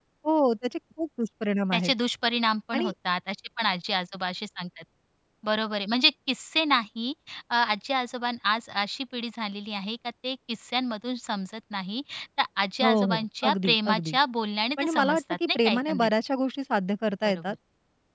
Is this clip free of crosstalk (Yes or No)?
No